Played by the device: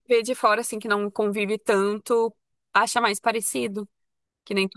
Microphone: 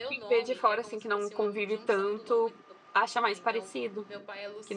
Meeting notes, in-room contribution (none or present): present